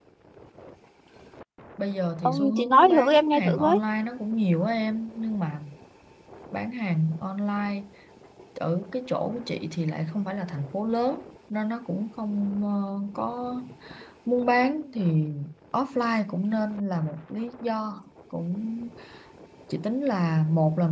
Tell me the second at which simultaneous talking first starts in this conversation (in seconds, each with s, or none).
2.2 s